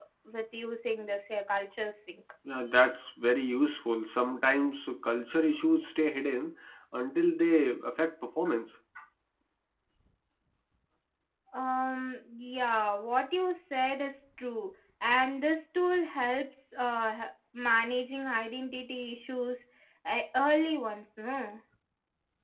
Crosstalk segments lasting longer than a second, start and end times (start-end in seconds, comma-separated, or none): none